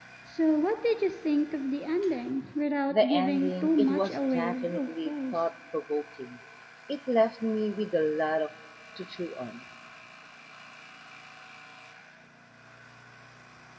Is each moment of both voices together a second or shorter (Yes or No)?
No